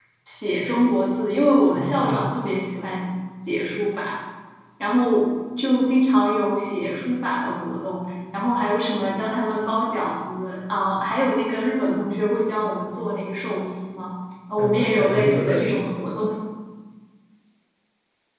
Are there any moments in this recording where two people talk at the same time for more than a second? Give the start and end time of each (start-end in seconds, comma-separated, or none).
14.6-15.8